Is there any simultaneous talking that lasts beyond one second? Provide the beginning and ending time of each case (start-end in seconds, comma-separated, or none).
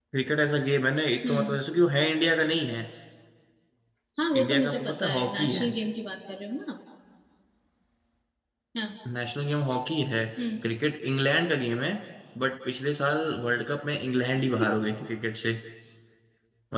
4.3-5.7